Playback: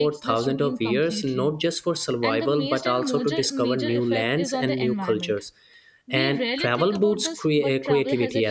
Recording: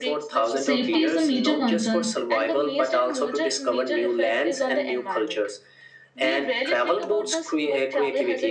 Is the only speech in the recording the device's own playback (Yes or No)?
No